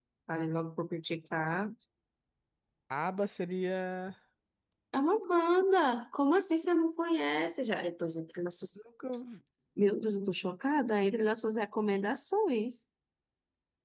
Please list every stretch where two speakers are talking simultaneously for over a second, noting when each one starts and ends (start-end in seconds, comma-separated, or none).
none